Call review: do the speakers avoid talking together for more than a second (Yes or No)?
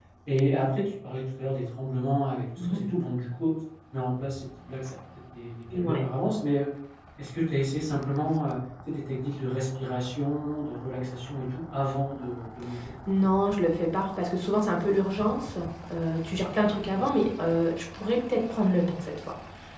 Yes